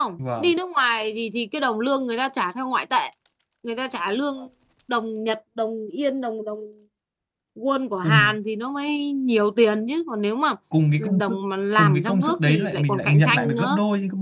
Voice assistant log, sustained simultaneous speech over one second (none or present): present